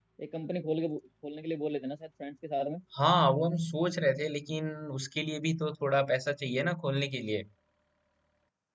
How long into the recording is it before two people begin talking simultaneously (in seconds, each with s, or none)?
none